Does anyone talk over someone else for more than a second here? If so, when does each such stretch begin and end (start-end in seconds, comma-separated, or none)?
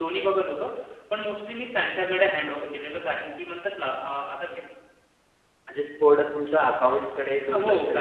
none